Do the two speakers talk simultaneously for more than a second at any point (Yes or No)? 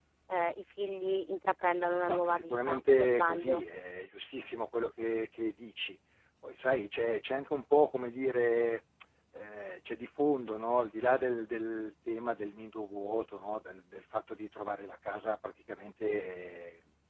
Yes